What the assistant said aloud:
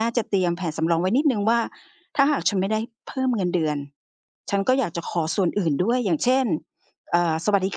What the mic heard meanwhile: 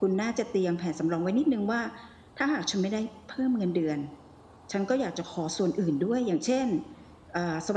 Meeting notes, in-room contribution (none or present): none